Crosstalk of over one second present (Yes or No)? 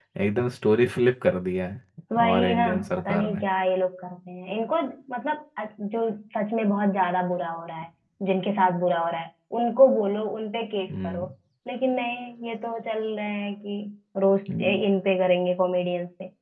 Yes